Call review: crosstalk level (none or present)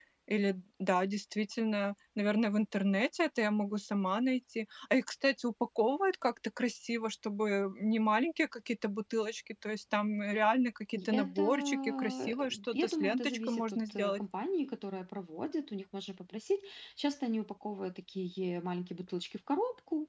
present